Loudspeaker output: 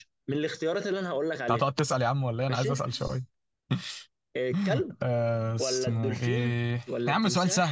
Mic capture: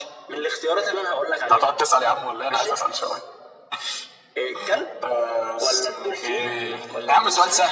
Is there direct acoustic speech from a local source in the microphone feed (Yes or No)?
Yes